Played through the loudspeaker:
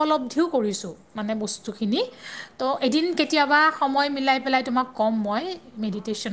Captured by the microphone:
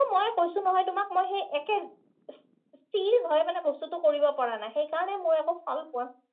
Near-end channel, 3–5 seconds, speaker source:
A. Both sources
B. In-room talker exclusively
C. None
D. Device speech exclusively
B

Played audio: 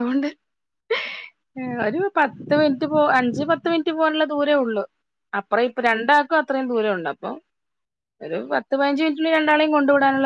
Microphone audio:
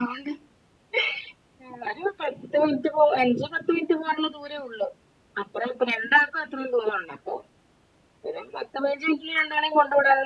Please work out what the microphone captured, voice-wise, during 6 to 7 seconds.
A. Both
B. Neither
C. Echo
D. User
C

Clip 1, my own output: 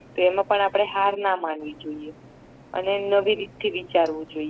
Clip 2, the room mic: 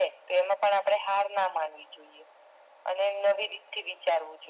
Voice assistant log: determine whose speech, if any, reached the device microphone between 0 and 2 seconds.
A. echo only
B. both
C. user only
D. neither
A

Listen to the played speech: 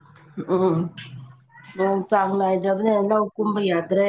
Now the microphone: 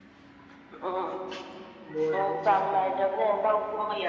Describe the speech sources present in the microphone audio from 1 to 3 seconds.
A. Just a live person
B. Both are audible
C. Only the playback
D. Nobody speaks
B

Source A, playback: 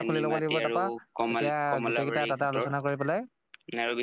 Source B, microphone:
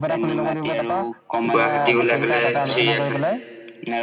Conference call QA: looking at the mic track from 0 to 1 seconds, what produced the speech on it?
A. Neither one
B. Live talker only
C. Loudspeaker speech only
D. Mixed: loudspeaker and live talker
C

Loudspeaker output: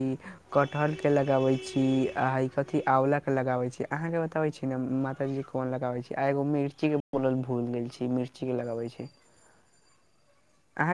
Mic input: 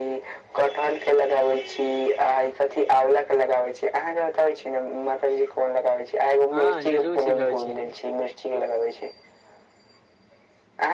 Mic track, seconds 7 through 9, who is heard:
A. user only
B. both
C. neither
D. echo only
B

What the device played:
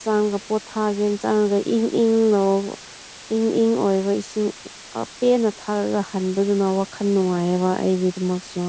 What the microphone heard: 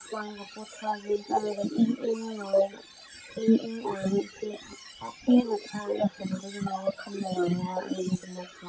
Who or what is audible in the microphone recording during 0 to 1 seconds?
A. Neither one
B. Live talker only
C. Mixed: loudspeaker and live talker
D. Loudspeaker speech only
D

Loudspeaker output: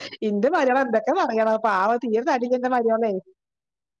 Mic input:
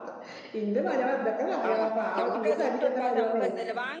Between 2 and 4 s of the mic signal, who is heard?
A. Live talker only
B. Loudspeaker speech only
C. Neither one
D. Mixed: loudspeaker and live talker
D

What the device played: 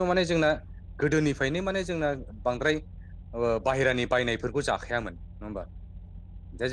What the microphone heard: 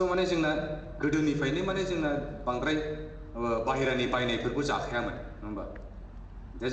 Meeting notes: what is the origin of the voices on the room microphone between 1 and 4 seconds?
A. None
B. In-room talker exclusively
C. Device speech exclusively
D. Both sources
C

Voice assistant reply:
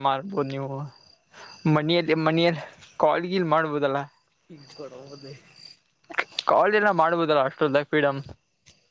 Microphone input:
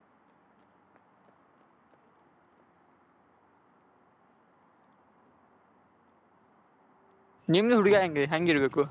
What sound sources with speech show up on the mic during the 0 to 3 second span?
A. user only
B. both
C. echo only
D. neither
D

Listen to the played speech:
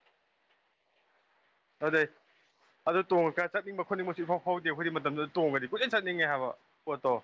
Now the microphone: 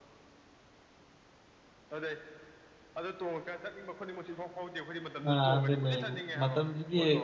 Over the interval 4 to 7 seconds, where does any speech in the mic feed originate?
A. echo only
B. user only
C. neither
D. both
D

